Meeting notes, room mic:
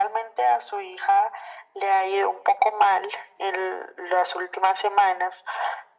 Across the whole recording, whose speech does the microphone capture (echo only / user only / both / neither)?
echo only